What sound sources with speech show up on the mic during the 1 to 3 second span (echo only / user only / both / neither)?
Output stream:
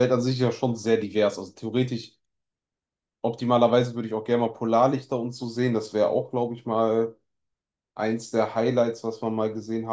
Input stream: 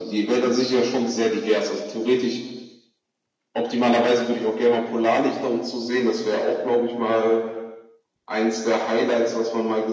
echo only